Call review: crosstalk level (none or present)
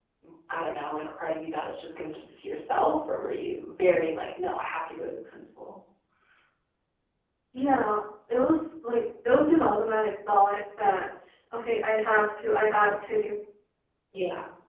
none